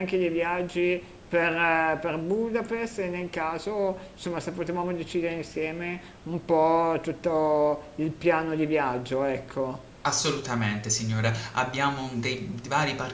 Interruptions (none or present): none